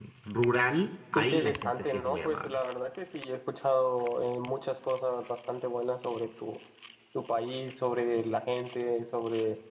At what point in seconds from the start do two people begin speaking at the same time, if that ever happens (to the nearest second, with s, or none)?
1 s